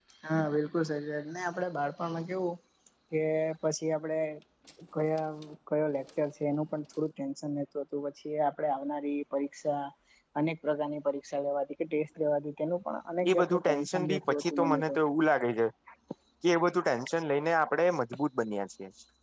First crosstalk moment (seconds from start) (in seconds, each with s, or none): 13.2 s